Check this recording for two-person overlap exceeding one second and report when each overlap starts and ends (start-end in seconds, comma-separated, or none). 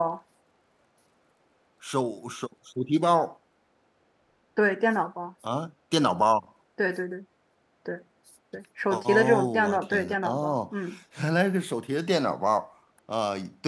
8.9-10.6